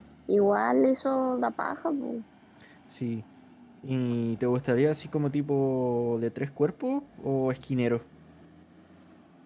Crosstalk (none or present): none